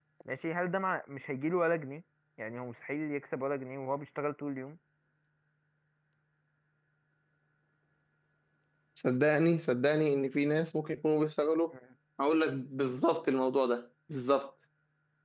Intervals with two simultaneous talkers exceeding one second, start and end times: none

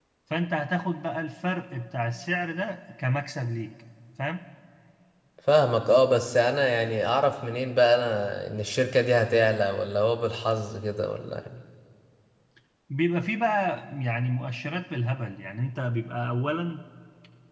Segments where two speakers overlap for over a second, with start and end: none

